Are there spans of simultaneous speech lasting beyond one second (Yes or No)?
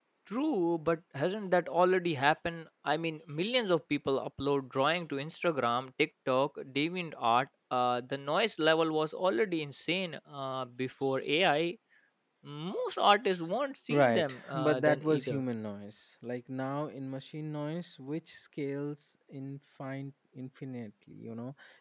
Yes